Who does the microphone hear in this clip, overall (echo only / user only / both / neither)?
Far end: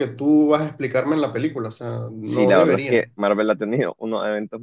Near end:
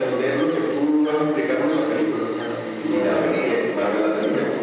echo only